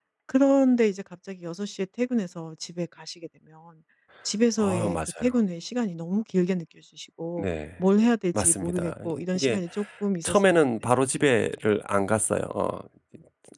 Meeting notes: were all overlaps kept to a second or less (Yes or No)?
No